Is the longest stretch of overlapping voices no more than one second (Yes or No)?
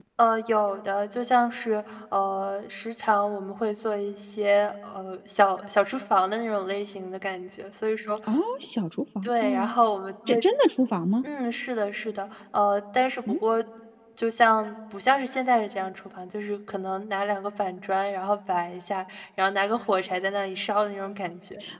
Yes